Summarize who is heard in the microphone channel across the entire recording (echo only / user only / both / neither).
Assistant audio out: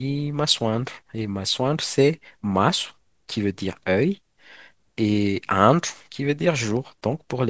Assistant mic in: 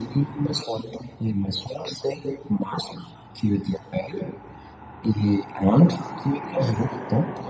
echo only